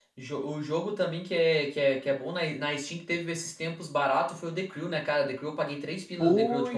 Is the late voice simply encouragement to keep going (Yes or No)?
No